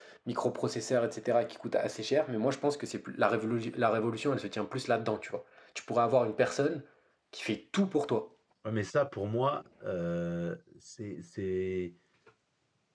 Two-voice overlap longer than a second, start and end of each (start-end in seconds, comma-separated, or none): none